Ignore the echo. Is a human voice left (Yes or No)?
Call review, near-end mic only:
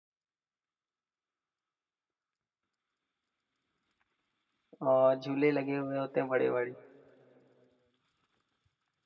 Yes